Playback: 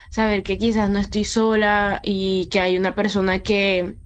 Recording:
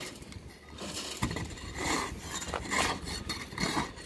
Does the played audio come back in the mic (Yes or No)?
No